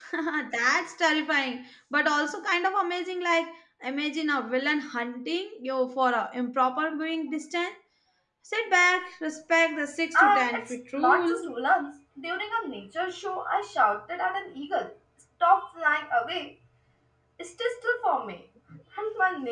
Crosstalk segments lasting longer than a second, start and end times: 10.1-11.5

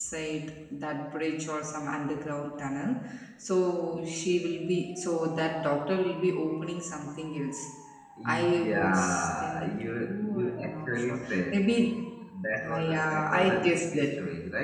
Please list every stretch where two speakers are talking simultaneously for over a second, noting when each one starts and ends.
8.2-11.6, 12.7-14.1

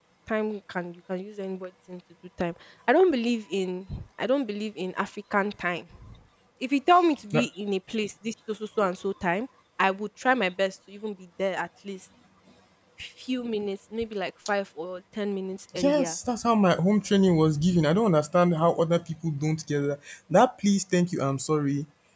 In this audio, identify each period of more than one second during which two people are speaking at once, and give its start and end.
none

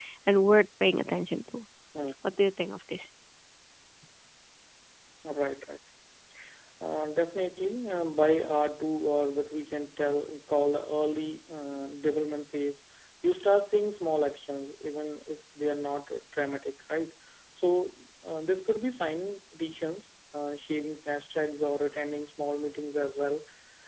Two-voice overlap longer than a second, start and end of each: none

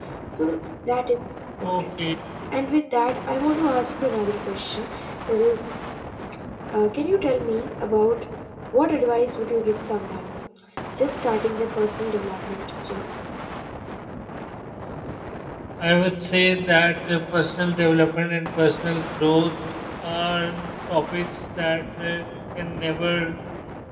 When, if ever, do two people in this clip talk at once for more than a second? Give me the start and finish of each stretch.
none

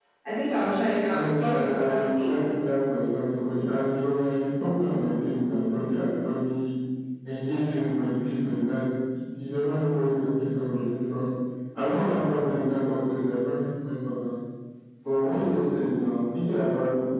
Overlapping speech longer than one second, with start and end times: 1.1-2.3

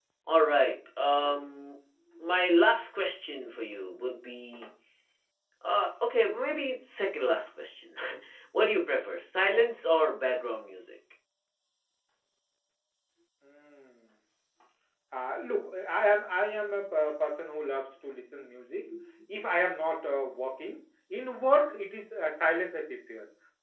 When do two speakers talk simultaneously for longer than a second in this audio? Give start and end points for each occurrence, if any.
none

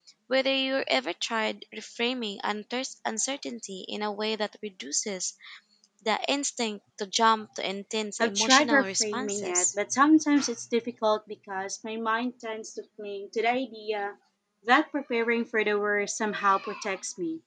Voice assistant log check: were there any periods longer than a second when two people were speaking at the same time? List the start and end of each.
8.2-9.7

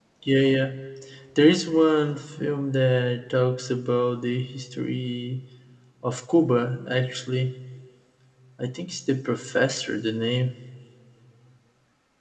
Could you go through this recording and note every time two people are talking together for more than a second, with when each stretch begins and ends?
none

